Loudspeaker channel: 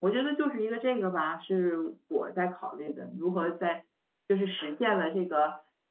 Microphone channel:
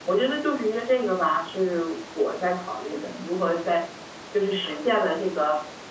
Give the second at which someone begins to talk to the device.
none

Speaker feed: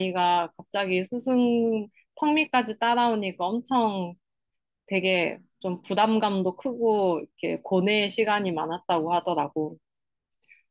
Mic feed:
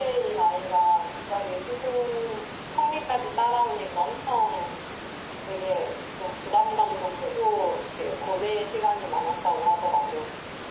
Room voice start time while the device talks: none

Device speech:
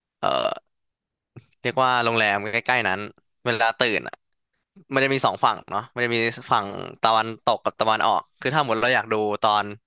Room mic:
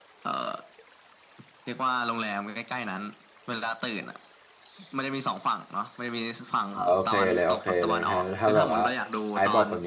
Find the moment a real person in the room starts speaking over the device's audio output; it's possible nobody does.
6.7 s

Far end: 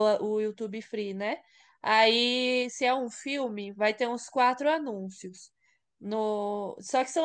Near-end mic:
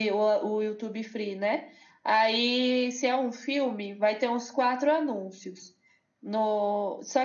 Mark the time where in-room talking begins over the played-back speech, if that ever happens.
none

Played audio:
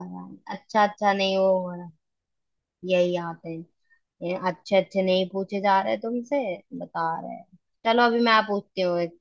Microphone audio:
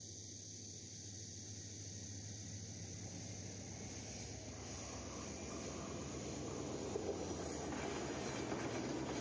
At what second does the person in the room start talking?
none

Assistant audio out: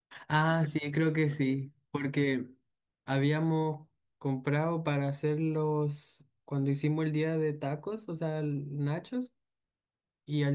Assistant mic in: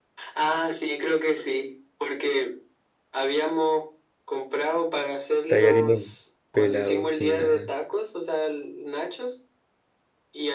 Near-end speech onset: 5.5 s

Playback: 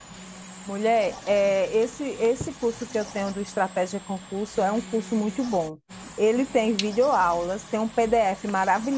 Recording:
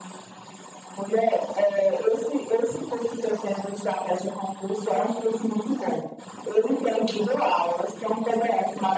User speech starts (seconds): none

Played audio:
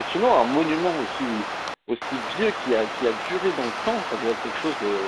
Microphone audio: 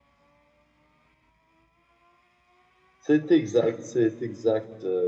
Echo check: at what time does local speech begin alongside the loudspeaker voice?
3.0 s

